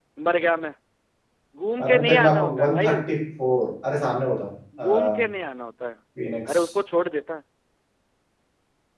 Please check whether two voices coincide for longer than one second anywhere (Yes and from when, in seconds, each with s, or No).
Yes, from 1.8 s